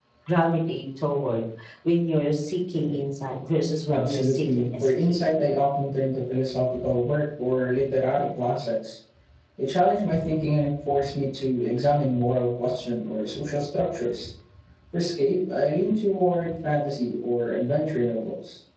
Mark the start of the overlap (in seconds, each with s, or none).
3.9 s